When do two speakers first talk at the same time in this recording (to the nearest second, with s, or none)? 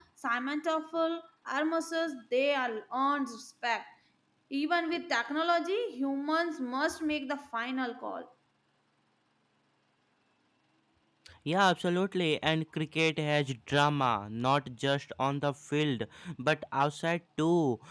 none